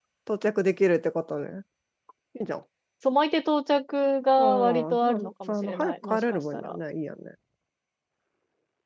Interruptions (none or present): present